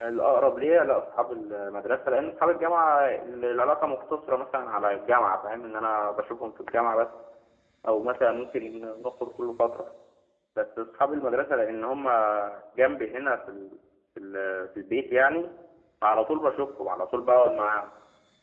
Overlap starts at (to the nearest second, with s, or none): none